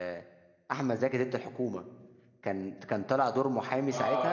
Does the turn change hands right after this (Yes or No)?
Yes